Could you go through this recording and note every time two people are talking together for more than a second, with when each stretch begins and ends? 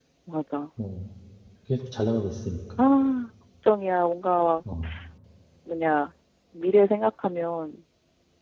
none

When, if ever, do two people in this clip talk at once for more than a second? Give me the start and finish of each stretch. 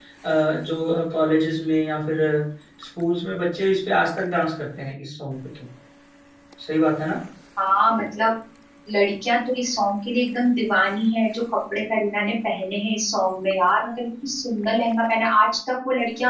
none

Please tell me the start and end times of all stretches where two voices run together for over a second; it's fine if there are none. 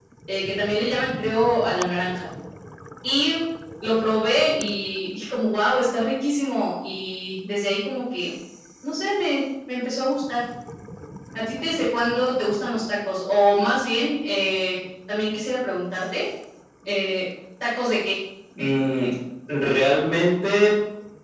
none

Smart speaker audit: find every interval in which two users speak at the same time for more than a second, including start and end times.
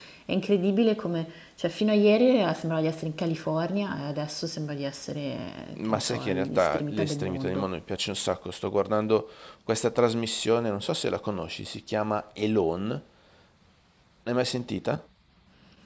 5.8-7.7

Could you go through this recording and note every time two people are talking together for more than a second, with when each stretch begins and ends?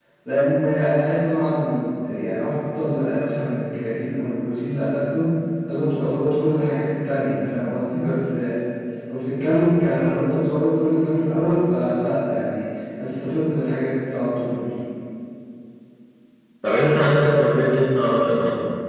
none

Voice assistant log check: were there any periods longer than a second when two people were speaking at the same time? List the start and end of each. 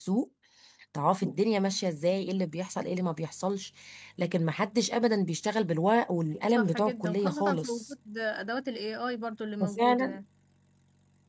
6.5-7.9

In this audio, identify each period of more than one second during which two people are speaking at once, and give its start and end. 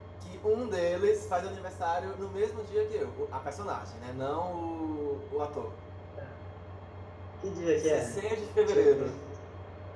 none

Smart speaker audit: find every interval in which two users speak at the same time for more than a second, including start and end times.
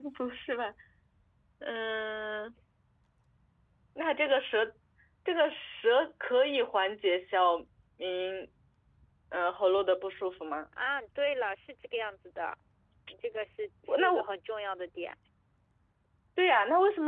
none

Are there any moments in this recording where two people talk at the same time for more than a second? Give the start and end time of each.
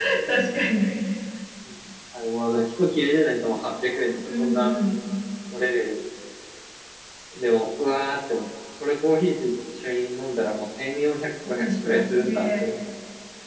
11.5-12.8

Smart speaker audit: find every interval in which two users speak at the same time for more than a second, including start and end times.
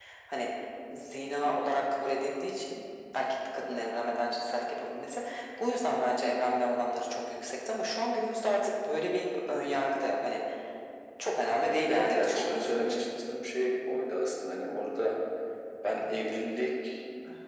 11.9-13.1

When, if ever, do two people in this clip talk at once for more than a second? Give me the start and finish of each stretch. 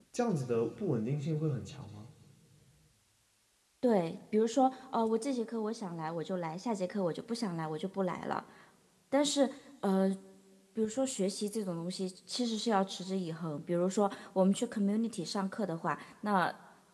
none

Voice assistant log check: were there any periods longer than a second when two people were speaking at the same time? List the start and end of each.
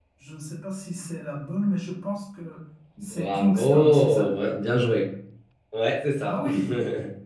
3.0-4.3

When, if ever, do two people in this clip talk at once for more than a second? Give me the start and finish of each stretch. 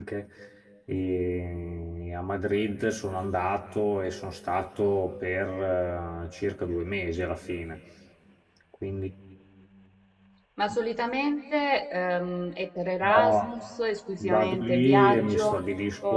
14.2-15.6

